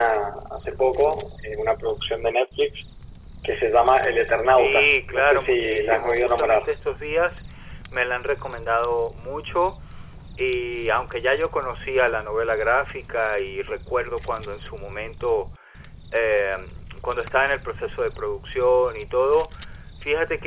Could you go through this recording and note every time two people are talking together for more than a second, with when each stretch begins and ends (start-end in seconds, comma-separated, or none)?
4.5-6.7